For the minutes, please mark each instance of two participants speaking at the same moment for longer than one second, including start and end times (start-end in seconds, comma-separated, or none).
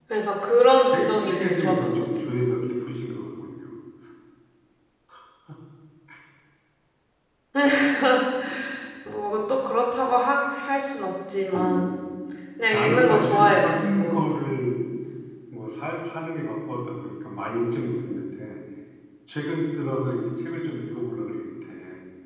0.8-2.0, 12.7-14.3